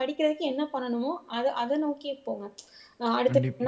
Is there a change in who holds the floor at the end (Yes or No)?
No